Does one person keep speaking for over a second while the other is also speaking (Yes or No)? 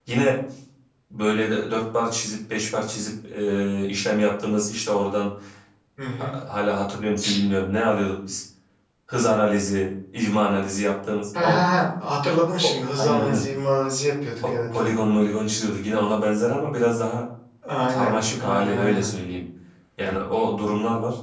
Yes